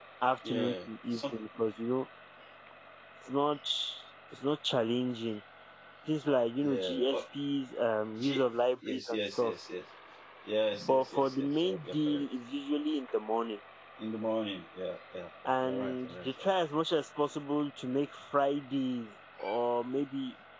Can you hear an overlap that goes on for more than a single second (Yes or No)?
Yes